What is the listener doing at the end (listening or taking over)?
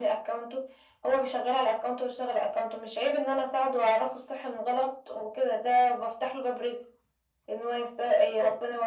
listening